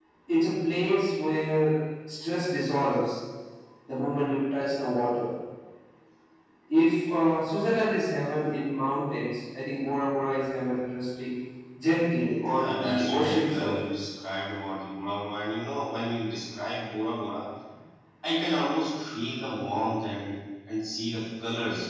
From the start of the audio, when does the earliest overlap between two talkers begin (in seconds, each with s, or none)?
12.4 s